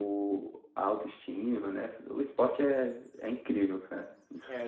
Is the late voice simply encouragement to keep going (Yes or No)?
No